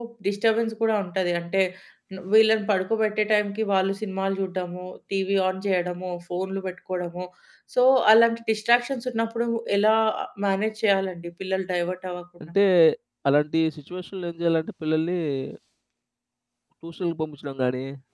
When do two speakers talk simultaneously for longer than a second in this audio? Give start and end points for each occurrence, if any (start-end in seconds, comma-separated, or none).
none